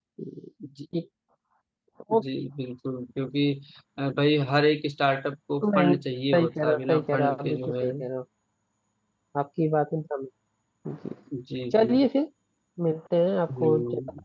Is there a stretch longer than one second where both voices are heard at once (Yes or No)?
Yes